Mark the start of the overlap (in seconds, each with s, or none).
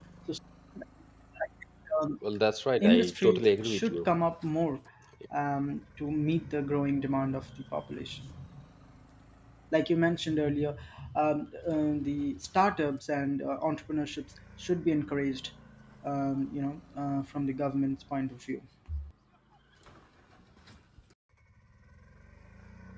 2.8 s